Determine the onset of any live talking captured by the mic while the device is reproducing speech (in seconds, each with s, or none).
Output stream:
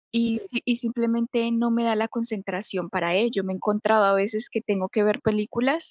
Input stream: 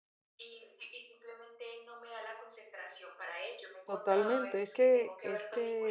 3.8 s